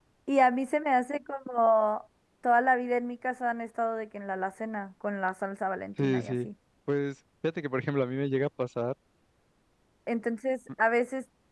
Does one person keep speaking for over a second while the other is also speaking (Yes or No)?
No